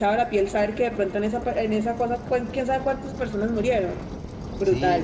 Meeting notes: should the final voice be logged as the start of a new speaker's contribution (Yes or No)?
Yes